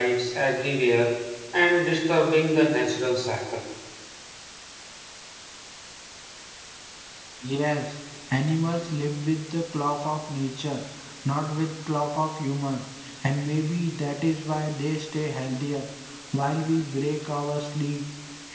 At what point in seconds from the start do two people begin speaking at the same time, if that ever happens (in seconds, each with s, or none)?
none